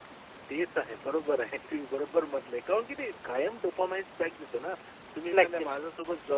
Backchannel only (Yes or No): Yes